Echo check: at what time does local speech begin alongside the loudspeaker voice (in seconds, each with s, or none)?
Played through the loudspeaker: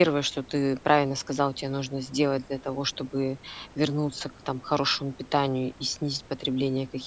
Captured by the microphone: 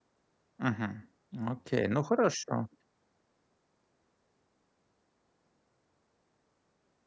0.6 s